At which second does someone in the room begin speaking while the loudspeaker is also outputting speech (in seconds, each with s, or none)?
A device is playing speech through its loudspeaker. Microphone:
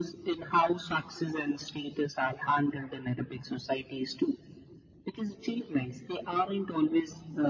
none